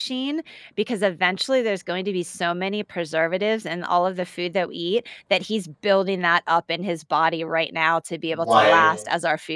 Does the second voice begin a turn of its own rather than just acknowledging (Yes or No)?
No